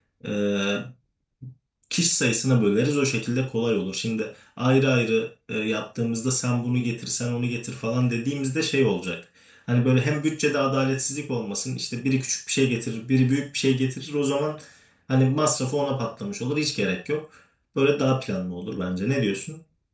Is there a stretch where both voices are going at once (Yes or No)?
No